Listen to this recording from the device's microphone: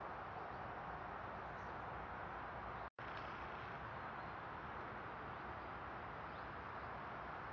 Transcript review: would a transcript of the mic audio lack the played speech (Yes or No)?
Yes